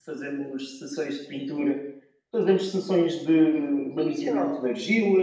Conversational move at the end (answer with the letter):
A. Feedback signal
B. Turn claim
A